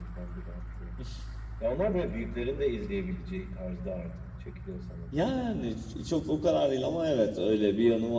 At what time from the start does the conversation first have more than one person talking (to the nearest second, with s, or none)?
none